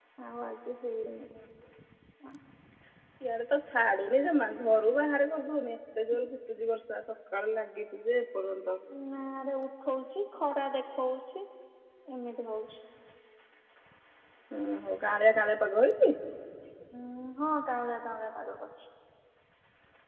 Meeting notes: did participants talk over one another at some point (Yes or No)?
No